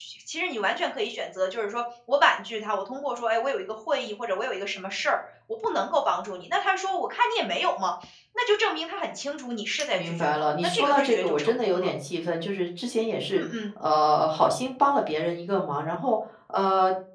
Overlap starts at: 9.9 s

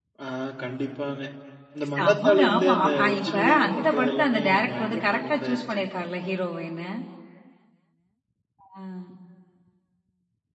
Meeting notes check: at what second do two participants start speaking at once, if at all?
1.8 s

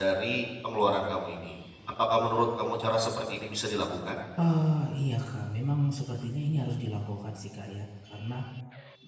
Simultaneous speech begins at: none

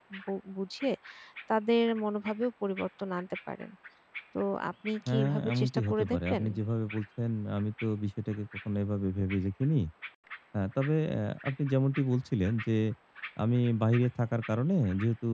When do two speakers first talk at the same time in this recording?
5.1 s

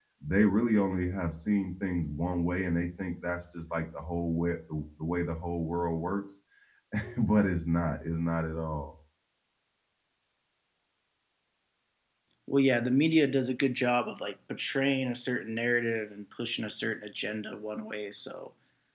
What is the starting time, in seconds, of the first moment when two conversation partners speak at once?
none

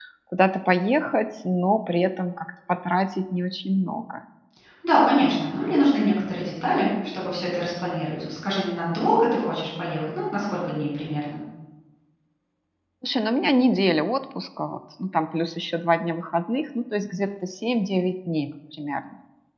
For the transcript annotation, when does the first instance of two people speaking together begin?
none

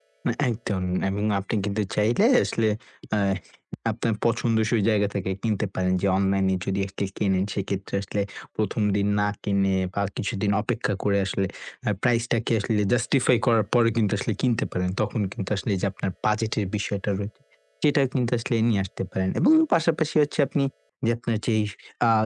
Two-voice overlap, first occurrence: none

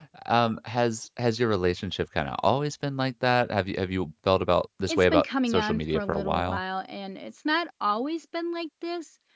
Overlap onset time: 4.8 s

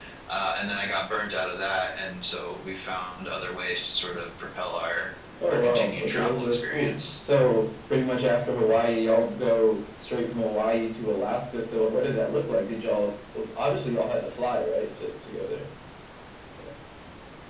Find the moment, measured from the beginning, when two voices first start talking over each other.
5.5 s

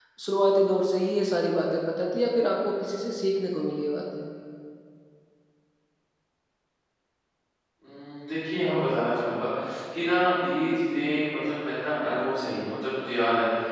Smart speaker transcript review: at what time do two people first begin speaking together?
none

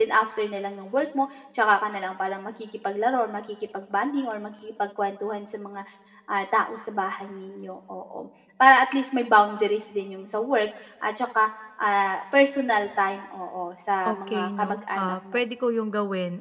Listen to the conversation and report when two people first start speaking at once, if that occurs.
14.0 s

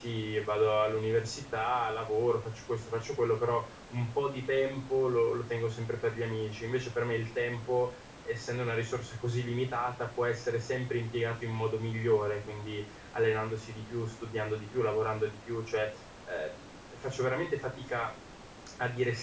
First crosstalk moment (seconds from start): none

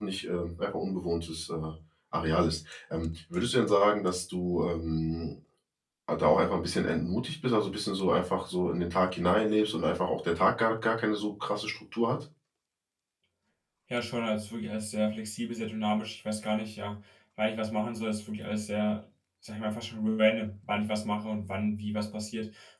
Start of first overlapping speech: none

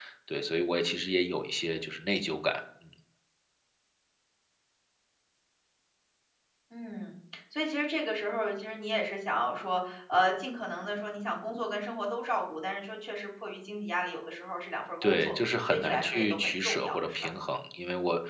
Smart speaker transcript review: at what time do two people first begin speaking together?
15.0 s

